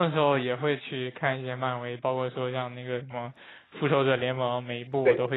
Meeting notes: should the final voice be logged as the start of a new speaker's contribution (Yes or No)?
No